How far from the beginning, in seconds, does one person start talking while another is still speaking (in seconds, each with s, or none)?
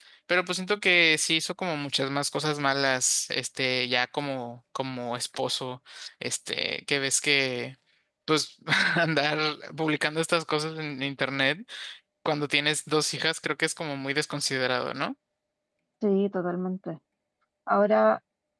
none